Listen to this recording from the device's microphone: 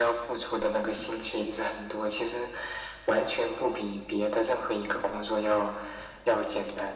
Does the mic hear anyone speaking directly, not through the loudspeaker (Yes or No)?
No